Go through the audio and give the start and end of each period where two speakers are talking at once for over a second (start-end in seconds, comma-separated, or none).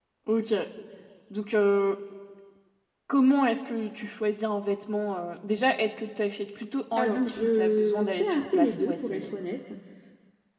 7.0-9.3